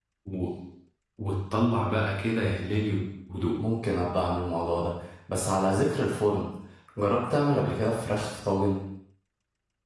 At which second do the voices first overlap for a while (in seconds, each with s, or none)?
none